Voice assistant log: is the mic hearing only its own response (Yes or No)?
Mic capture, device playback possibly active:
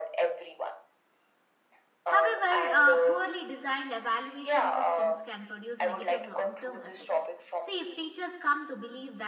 No